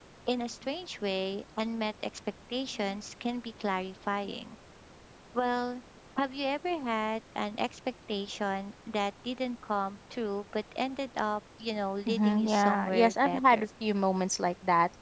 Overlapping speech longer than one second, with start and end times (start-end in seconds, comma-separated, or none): 12.1-13.6